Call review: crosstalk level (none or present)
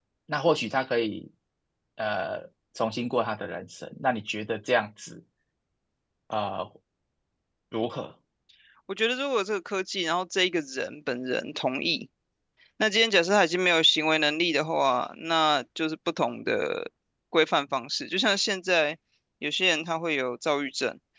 none